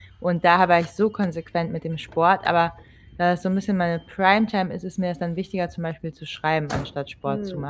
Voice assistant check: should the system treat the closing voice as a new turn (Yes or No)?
Yes